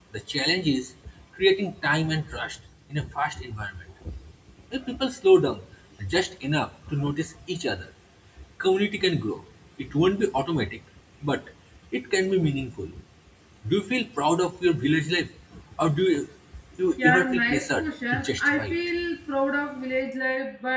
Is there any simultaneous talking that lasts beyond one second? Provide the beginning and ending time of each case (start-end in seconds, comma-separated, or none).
17.0-18.8